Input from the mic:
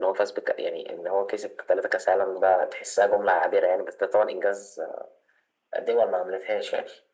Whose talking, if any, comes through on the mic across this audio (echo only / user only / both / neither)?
echo only